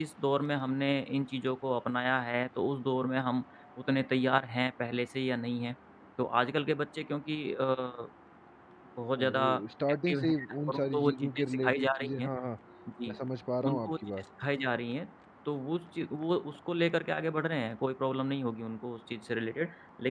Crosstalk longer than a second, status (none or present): present